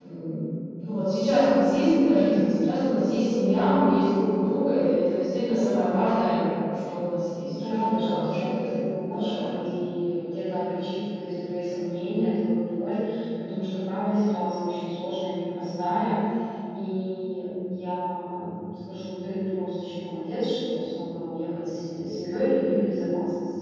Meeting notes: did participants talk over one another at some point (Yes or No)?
Yes